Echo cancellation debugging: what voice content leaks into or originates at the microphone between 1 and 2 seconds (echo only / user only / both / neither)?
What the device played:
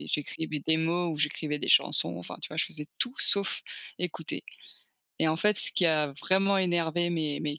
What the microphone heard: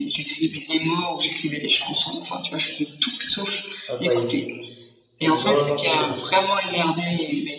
echo only